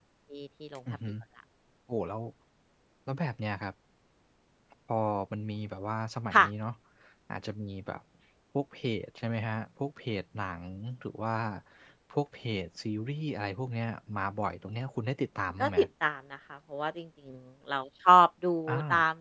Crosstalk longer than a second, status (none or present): none